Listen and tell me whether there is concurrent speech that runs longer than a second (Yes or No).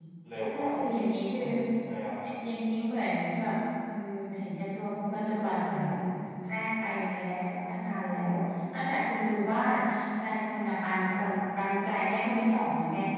No